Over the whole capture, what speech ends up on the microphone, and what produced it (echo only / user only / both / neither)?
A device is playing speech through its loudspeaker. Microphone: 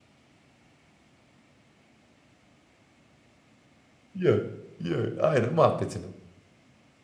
user only